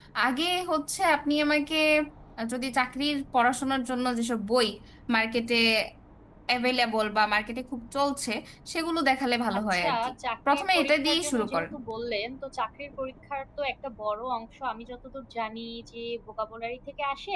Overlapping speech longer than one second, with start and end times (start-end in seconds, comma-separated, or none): 10.5-11.7